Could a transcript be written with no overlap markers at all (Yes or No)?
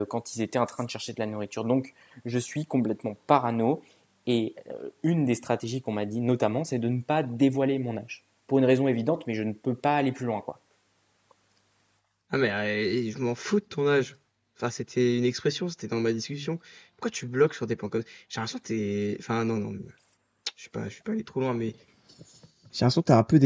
Yes